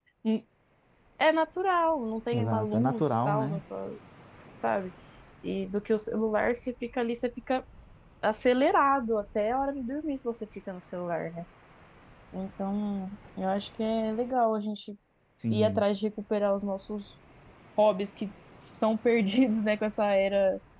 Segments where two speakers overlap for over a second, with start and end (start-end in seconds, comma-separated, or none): 2.3-3.6